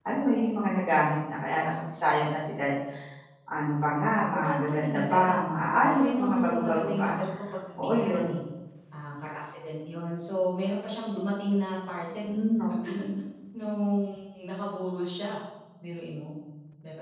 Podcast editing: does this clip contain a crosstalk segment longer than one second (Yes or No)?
Yes